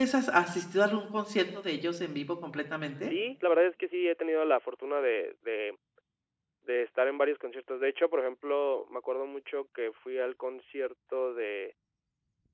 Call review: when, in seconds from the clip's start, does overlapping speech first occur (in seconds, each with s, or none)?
none